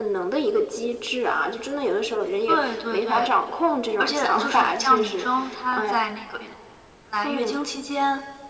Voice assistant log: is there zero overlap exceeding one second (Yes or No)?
No